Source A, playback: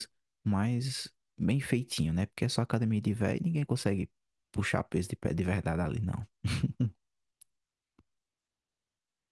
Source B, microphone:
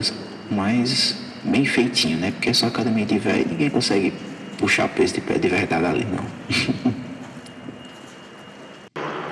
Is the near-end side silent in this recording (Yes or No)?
Yes